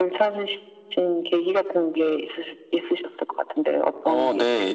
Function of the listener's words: taking over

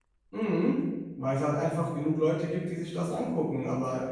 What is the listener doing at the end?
listening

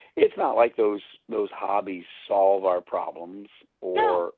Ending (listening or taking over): listening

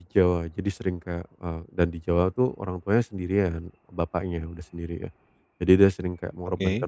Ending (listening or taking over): listening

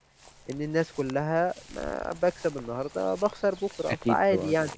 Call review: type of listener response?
taking over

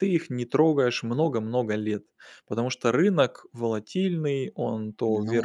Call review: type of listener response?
listening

